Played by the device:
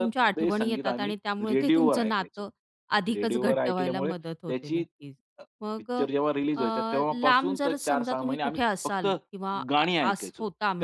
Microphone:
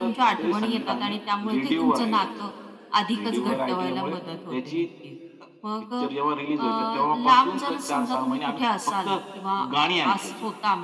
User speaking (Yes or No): No